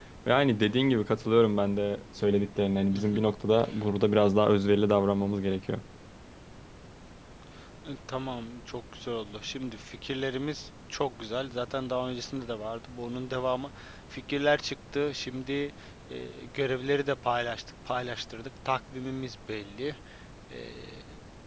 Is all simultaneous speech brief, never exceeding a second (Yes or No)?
Yes